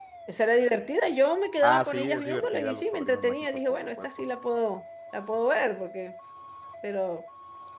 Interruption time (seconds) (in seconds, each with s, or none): 1.6 s